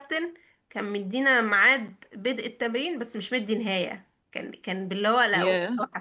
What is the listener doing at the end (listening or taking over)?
listening